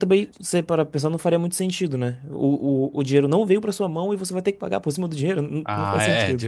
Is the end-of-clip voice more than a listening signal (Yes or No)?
Yes